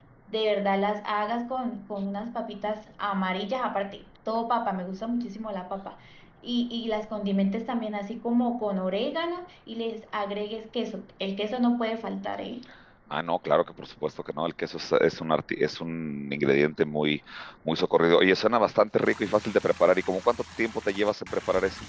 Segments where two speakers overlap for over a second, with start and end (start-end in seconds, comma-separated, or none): none